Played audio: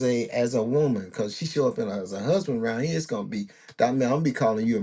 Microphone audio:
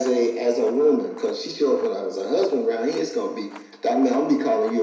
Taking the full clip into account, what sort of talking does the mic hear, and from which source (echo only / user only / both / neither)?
echo only